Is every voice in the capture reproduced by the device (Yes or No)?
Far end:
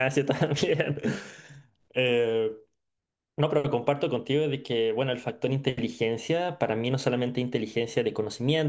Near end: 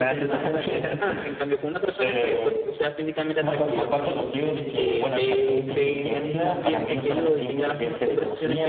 No